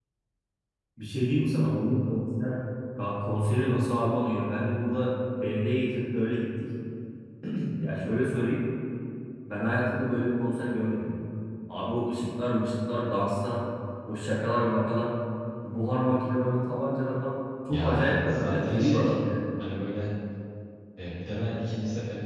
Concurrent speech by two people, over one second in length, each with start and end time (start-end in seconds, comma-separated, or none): 17.7-19.1